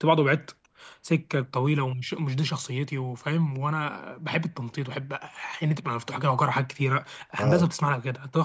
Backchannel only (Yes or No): Yes